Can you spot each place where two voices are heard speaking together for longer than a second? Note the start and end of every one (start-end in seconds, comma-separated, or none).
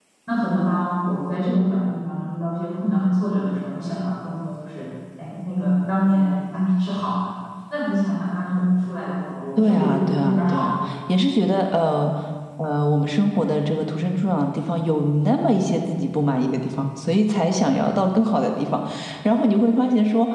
9.6-10.9